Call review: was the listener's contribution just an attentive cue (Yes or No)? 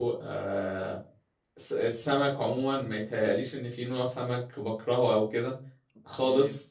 Yes